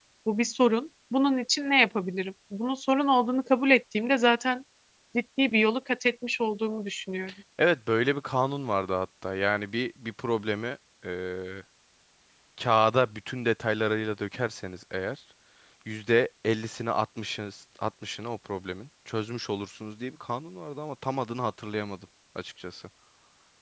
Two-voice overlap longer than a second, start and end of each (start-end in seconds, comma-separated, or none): none